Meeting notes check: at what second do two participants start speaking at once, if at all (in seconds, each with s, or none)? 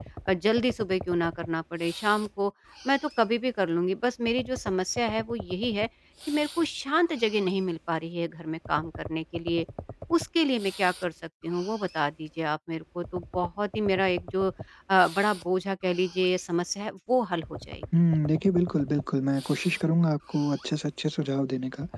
none